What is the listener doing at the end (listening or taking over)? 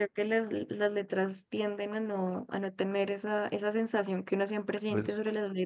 listening